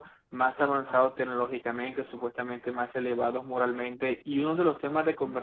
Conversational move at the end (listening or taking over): listening